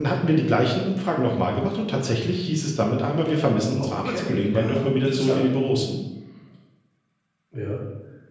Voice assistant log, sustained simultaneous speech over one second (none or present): present